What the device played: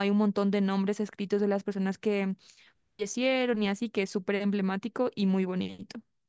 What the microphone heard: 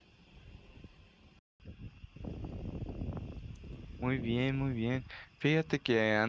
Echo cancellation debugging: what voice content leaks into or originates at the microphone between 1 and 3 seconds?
neither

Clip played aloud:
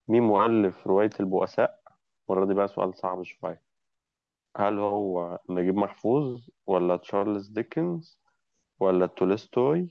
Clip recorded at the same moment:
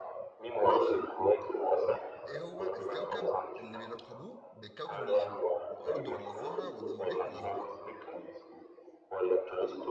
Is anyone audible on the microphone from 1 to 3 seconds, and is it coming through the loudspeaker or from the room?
both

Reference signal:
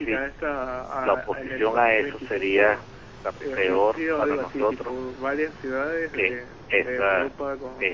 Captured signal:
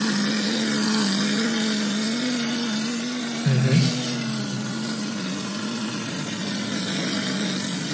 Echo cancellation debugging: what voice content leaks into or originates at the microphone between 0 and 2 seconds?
neither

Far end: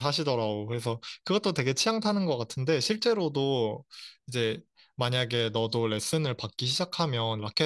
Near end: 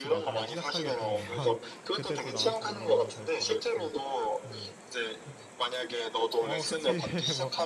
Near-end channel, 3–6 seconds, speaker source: both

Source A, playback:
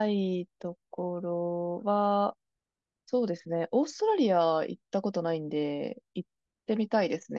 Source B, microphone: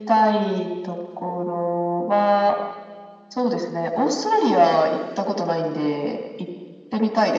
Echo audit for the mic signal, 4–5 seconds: echo only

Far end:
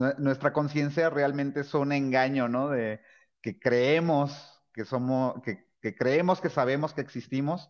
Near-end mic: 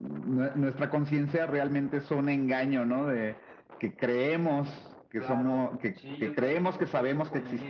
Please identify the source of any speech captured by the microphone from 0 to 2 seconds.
echo only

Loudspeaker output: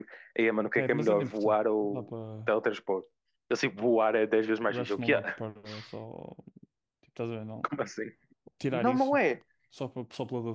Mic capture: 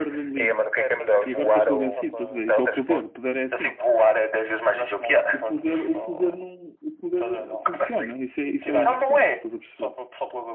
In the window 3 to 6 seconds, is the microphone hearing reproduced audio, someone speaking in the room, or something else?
both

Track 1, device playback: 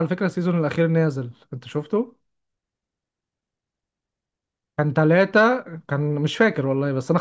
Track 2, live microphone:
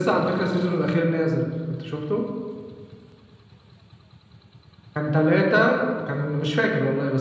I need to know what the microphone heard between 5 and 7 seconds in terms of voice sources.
echo only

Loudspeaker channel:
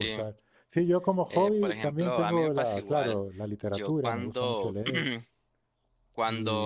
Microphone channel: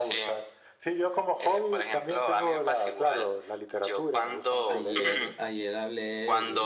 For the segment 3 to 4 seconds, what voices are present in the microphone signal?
echo only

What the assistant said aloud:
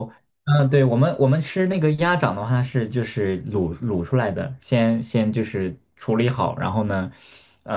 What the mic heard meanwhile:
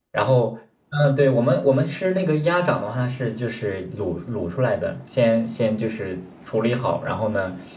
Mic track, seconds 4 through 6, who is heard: echo only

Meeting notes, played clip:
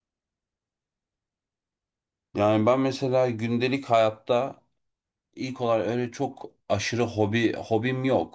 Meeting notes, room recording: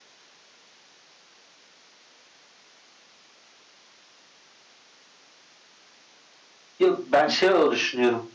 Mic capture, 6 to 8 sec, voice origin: user only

